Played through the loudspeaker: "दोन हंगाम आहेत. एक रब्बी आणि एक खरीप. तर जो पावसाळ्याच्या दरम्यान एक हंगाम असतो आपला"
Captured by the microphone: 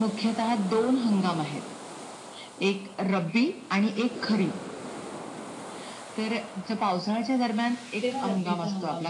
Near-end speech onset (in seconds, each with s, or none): 8.0 s